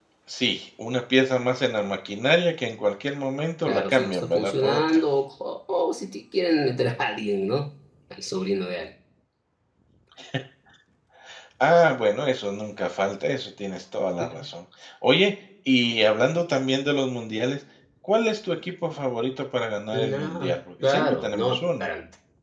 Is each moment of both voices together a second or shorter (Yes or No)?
No